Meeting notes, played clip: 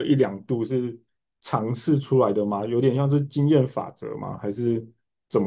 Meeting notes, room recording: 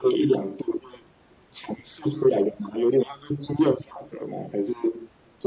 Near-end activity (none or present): none